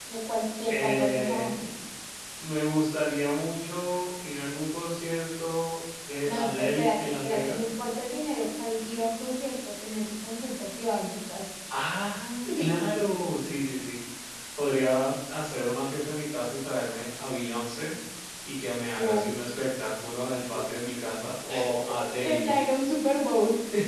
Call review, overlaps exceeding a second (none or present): present